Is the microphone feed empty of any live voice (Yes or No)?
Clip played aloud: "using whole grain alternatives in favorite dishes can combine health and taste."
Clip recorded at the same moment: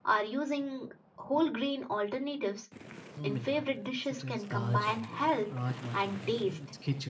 No